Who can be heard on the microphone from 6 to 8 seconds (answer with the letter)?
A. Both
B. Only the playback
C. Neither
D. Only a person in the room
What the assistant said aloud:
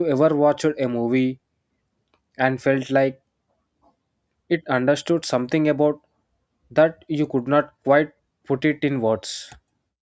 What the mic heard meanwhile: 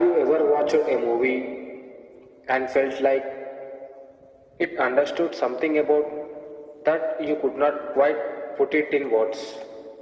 B